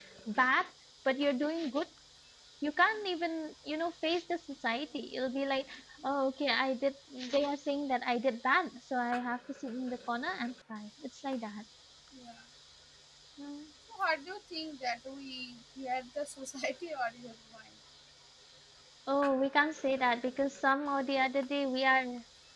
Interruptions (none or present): none